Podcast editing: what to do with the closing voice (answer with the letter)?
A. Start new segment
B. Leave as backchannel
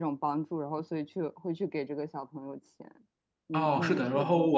A